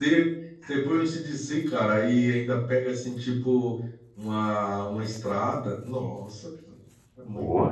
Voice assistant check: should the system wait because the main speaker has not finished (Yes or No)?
No